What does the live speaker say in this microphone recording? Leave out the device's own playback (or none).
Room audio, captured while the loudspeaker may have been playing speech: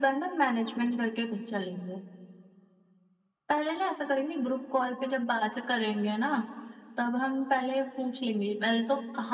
none